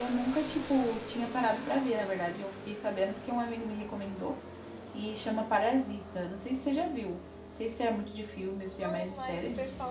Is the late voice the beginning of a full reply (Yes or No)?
Yes